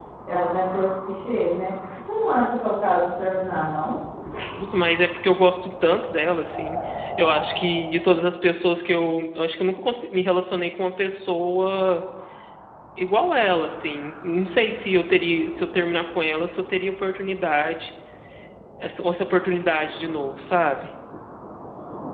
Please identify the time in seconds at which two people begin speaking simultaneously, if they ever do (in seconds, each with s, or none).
none